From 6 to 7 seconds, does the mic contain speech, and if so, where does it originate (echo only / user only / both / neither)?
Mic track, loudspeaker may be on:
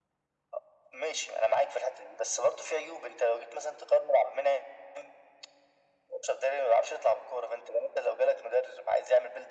echo only